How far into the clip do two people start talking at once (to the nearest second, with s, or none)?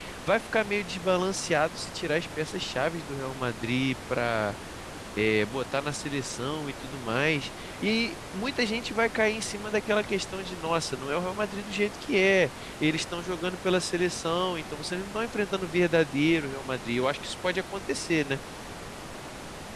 none